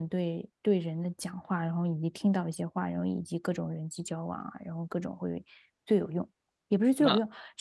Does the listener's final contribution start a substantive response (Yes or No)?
No